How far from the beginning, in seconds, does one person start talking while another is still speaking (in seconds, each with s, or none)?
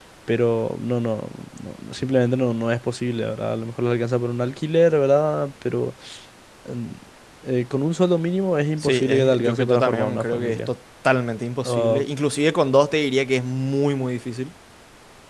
8.8 s